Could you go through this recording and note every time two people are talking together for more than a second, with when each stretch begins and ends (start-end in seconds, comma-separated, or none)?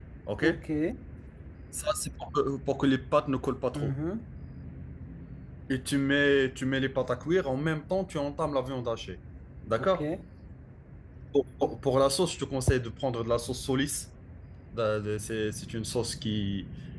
none